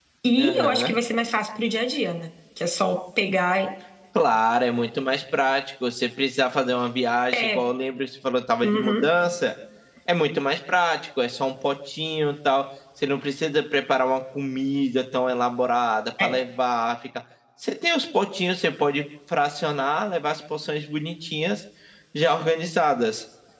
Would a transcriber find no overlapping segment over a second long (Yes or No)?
Yes